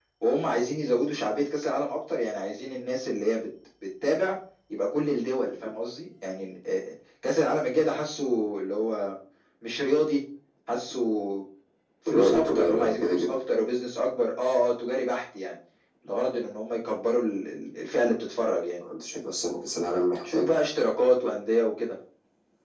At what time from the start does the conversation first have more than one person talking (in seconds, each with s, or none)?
12.1 s